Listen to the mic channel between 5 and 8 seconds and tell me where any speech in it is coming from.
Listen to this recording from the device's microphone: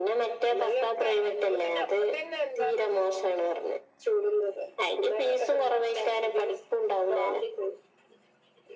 echo only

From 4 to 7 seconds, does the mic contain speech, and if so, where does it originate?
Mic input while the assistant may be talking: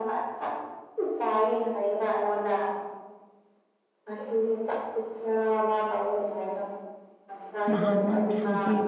echo only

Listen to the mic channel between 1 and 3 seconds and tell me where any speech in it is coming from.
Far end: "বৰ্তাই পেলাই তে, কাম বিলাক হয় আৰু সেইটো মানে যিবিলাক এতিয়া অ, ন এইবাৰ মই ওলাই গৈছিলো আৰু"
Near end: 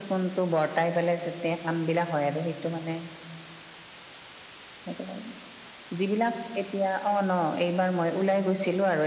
echo only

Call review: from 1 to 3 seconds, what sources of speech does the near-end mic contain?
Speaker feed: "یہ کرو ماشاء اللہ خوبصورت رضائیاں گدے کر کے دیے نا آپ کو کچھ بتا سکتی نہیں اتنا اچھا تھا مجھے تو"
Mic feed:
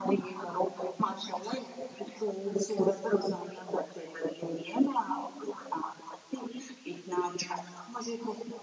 echo only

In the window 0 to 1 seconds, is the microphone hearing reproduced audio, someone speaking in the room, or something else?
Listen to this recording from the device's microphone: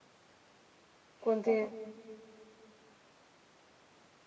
neither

